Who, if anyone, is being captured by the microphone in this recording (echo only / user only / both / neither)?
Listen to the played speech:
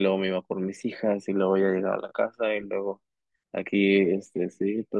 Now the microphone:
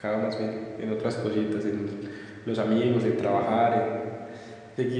user only